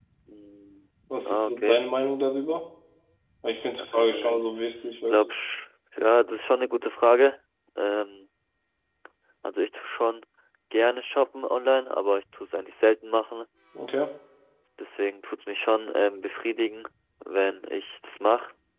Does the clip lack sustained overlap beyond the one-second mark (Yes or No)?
No